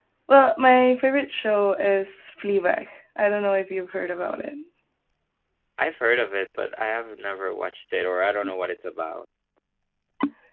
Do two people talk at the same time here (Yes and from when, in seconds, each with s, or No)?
No